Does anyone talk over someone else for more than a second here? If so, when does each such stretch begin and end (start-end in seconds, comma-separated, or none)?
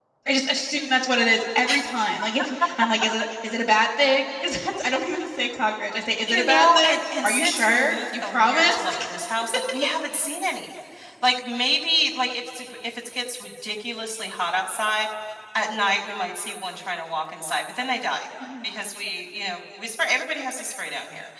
6.2-8.9